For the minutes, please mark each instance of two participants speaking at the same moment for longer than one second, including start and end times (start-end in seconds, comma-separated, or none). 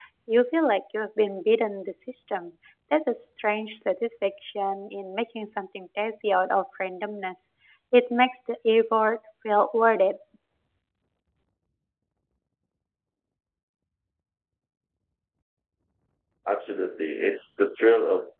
none